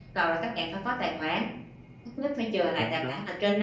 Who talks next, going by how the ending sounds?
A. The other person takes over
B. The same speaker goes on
B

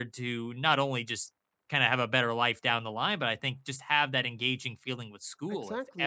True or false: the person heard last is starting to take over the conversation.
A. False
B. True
B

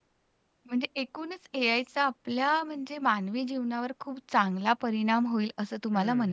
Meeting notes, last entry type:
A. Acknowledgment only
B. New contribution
B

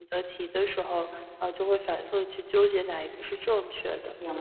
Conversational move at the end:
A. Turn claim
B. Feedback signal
A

